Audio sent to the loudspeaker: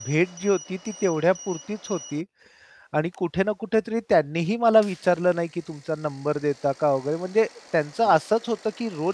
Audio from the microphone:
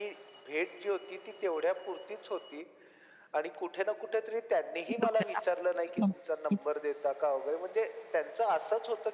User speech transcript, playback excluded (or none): बरोबर. नक्कीच.